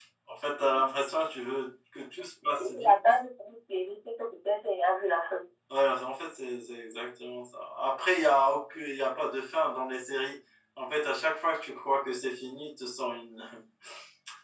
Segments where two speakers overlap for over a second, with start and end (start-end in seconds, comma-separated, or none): none